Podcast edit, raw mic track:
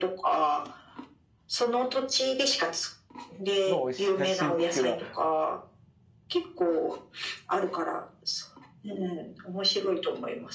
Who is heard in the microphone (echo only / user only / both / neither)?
both